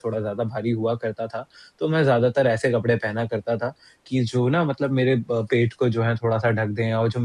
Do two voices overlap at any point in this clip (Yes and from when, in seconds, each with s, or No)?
No